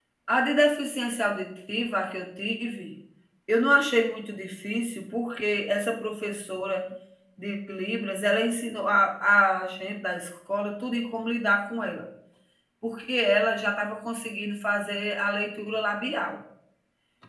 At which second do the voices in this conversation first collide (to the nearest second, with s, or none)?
none